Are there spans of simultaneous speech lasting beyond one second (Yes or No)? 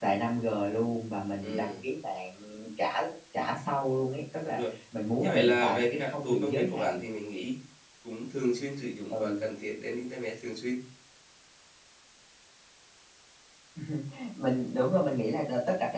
Yes